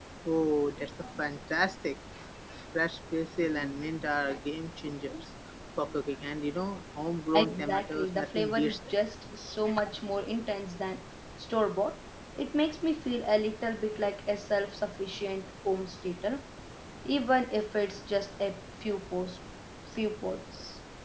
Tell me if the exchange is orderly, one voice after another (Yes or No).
No